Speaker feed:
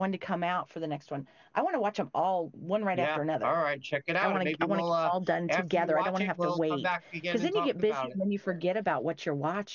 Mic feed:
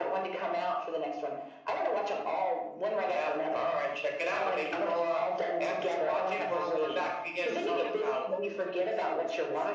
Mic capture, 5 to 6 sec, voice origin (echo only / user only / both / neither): both